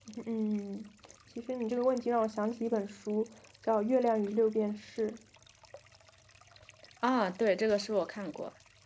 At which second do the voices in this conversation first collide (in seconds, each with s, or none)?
none